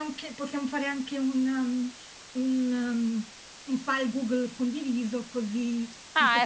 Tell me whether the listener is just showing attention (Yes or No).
Yes